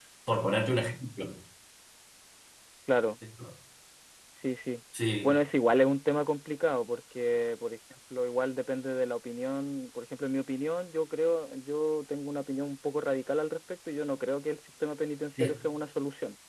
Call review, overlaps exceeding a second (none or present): none